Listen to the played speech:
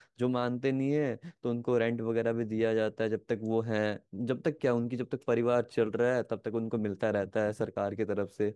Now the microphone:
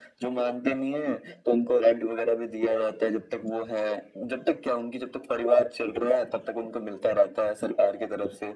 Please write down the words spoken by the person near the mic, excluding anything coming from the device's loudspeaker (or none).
none